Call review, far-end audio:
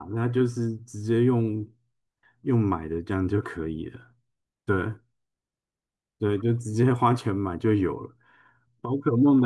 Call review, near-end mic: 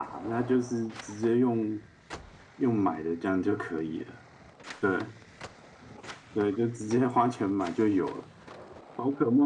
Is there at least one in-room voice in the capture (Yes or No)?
No